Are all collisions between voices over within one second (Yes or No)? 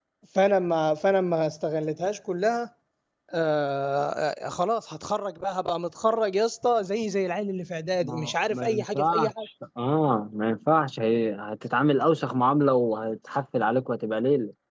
No